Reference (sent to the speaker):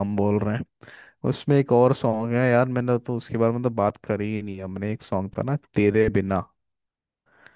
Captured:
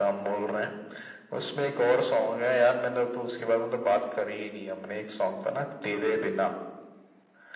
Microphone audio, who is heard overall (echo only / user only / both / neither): echo only